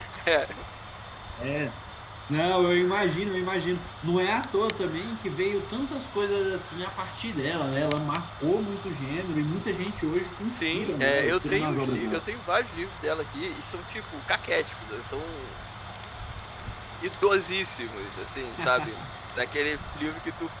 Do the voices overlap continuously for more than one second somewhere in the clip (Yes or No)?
Yes